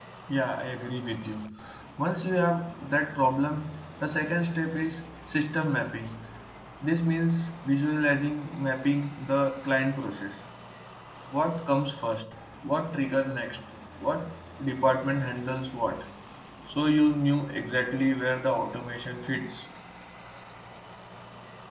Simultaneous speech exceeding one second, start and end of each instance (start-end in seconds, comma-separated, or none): none